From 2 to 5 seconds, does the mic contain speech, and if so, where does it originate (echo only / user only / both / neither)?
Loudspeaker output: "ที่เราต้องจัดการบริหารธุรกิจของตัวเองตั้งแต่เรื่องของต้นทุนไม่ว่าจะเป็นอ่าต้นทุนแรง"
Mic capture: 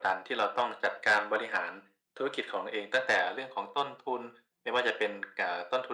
echo only